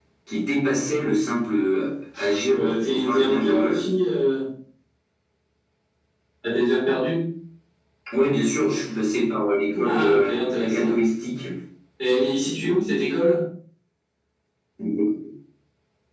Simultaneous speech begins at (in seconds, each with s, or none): 2.2 s